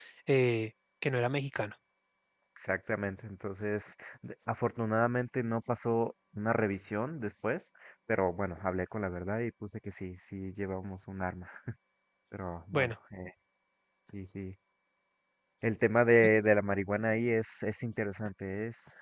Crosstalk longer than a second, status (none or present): none